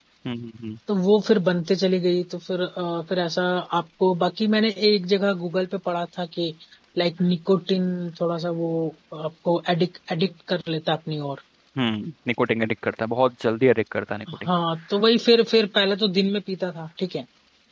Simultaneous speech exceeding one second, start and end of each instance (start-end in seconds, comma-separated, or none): none